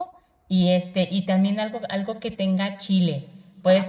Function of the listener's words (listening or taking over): listening